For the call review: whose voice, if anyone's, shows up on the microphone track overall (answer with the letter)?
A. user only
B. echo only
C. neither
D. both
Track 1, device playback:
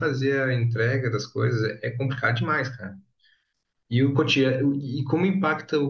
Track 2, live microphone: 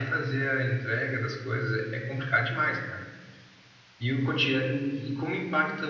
B